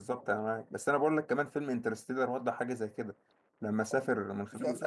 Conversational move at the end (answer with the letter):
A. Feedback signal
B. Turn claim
B